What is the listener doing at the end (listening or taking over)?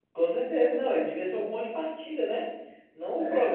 taking over